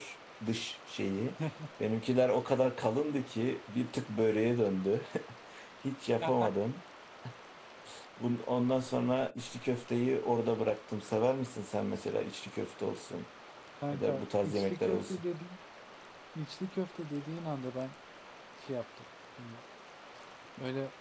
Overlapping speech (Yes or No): Yes